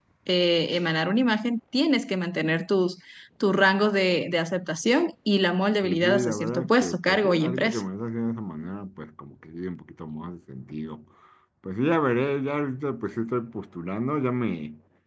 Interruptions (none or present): present